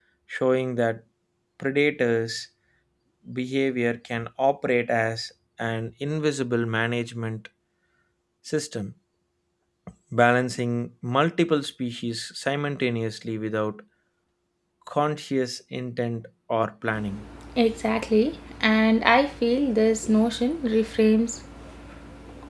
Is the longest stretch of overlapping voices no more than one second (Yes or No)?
Yes